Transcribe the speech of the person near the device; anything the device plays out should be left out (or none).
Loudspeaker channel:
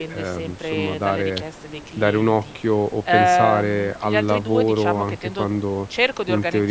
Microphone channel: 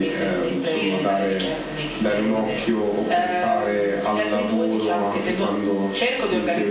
ehm,